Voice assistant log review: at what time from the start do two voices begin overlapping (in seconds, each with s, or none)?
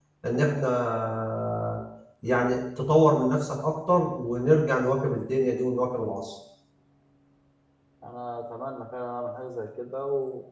none